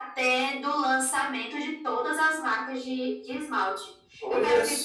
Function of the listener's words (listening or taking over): listening